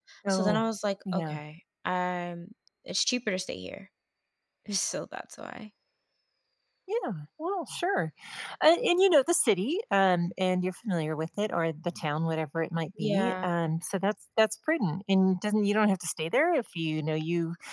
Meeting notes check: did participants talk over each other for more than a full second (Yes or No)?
No